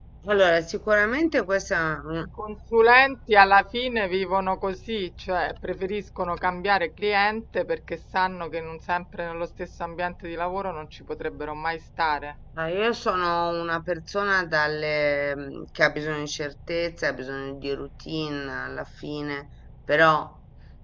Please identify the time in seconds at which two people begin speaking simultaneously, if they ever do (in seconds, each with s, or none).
none